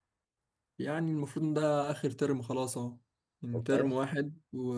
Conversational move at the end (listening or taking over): listening